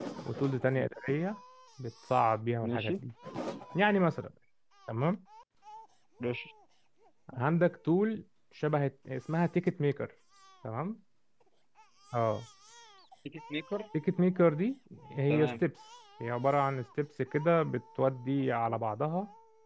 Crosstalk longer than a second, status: none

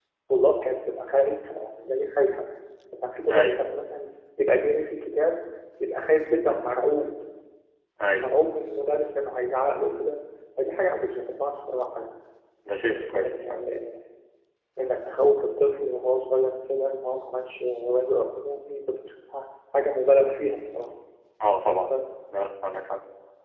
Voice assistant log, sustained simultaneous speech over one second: none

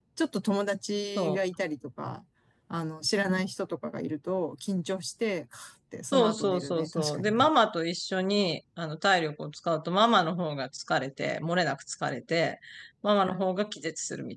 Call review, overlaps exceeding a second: present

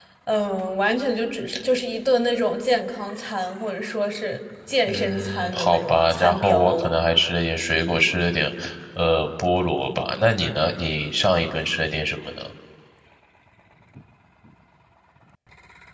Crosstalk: present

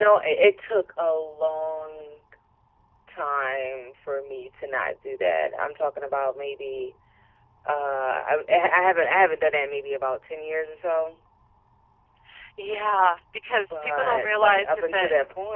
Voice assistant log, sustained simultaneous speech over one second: present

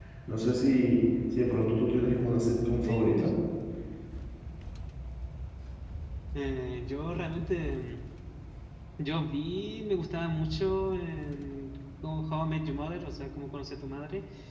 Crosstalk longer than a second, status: none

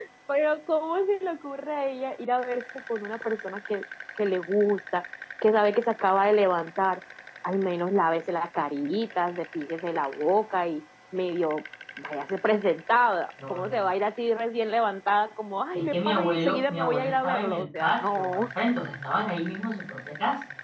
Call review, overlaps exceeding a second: present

